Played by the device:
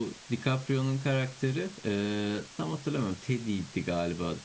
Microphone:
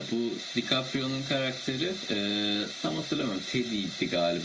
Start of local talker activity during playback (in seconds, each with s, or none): none